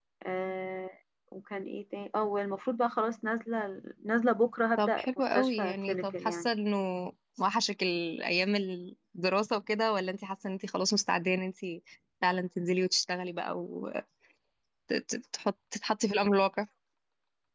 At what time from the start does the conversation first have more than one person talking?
4.8 s

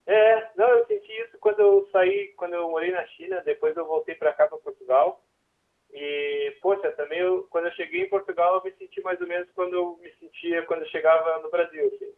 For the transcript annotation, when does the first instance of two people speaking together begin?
none

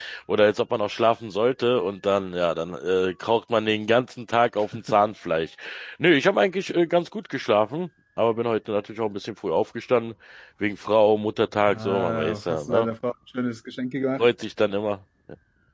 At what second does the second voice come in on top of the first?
11.7 s

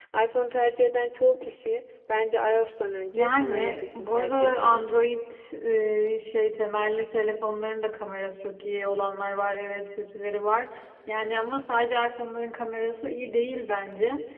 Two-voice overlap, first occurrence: 3.1 s

